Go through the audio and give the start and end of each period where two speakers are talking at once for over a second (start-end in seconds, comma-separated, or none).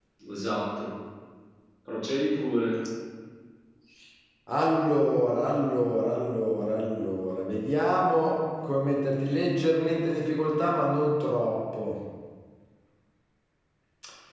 none